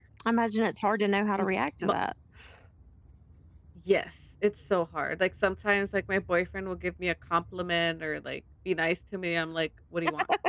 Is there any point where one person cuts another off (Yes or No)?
No